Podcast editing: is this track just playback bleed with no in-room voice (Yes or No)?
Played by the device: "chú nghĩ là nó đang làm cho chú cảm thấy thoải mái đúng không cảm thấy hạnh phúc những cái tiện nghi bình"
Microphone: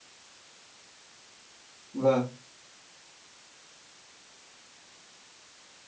No